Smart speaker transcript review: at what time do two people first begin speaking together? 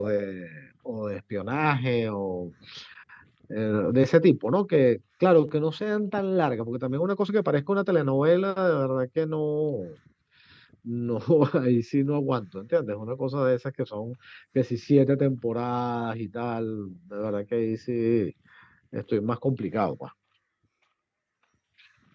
none

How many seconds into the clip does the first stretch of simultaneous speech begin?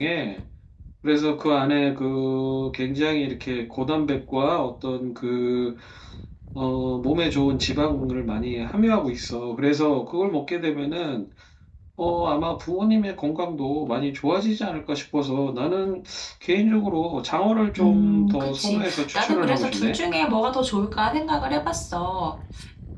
18 s

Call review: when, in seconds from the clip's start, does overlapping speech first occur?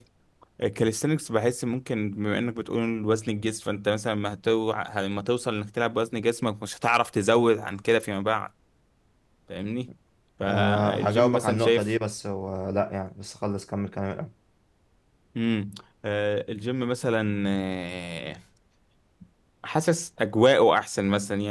10 s

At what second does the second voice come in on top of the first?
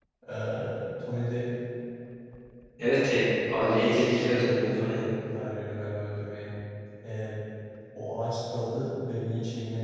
4 s

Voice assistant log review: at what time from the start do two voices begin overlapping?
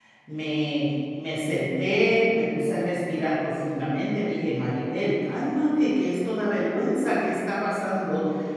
none

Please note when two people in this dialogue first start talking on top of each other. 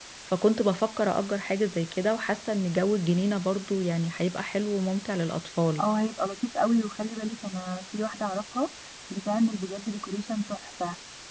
none

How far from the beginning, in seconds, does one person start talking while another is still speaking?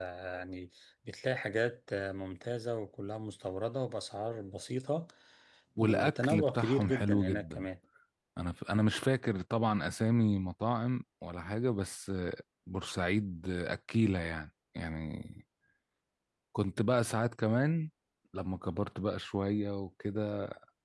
6 s

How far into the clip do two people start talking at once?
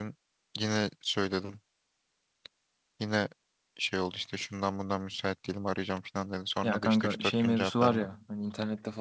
7 s

